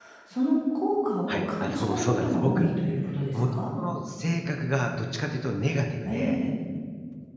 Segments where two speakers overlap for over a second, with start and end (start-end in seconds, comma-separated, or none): 1.3-2.7